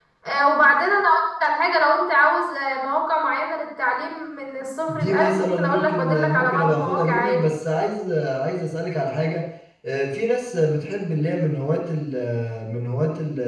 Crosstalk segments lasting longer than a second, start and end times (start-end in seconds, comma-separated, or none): 4.9-7.4